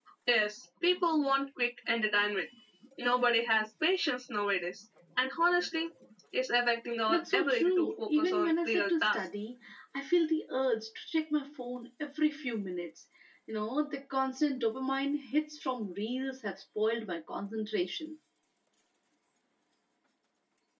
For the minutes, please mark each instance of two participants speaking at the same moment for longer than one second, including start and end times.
7.1-9.3

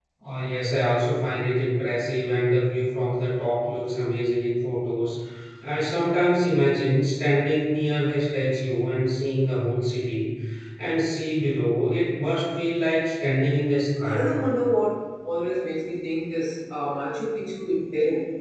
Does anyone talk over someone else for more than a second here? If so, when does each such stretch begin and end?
none

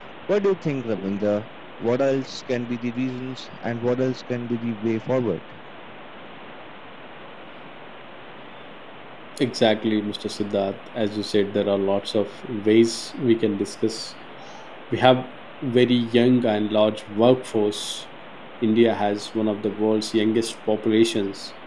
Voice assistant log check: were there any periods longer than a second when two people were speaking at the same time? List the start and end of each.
none

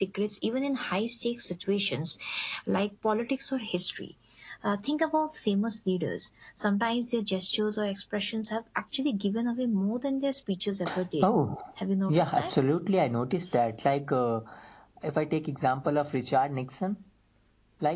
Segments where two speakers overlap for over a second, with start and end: none

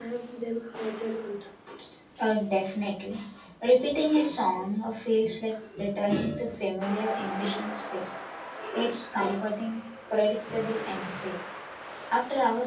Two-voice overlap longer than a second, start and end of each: none

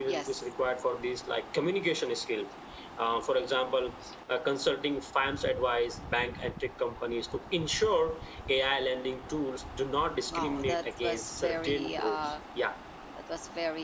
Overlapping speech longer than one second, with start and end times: 10.3-12.3

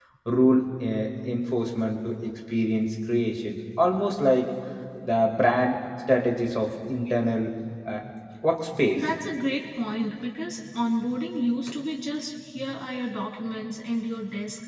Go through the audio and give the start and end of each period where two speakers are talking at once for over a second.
none

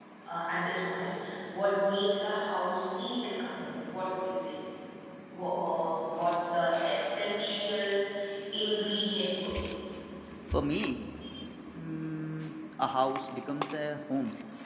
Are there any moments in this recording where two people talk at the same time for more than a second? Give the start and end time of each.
none

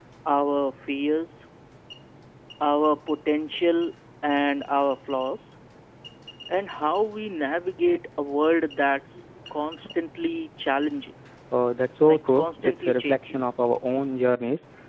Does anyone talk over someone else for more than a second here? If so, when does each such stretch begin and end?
12.0-13.3

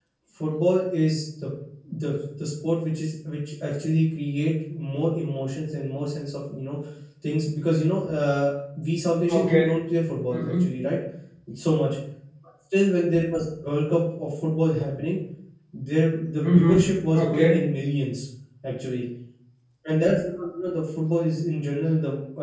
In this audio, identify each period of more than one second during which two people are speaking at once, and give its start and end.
16.4-17.7

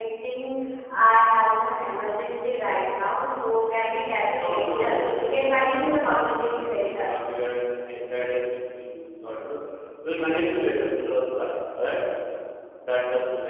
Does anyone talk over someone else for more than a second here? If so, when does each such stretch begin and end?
4.3-7.1

